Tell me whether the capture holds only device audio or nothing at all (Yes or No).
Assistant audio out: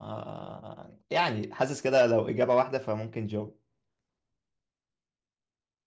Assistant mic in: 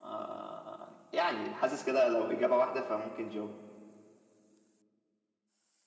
Yes